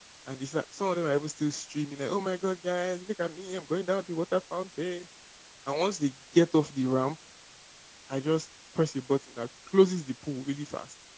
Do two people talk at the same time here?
No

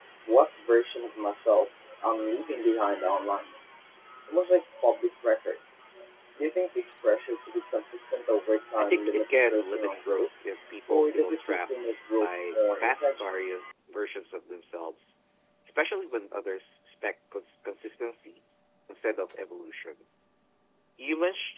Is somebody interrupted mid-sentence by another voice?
Yes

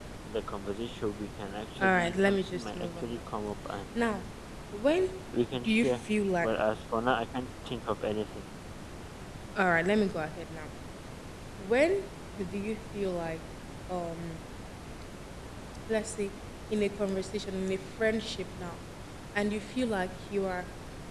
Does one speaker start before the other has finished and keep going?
Yes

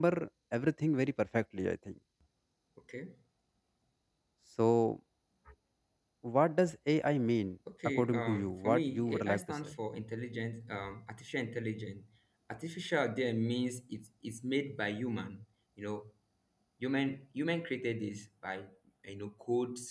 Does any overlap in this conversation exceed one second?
Yes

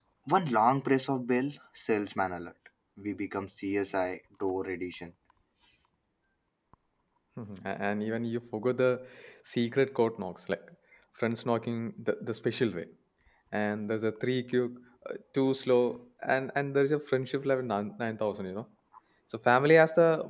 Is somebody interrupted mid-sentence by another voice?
No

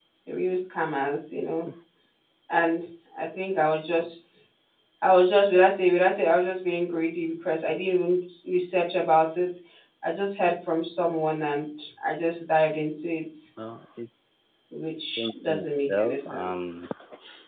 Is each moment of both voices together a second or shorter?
No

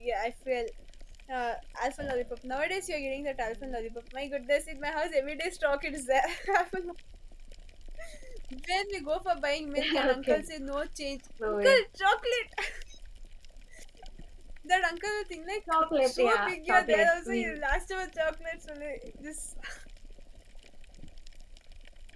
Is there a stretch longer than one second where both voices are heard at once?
Yes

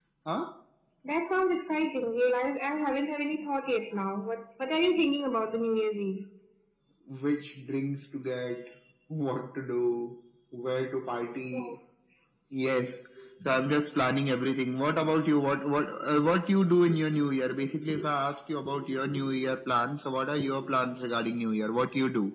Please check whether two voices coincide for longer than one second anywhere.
No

